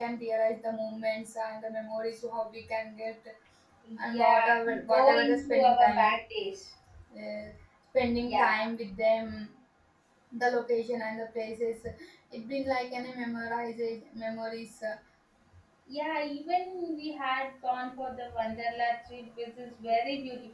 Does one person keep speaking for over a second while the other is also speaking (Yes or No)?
Yes